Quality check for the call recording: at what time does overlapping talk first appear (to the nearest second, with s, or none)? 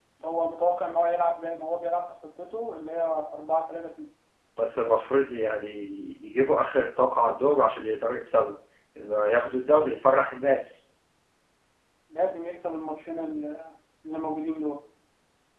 none